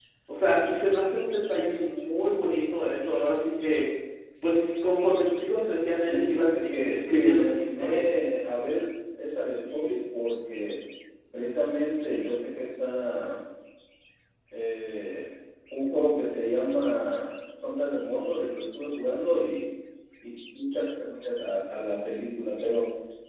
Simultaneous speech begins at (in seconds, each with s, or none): 6.0 s